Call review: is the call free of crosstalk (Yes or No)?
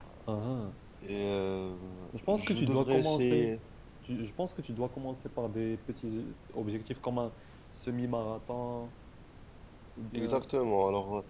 No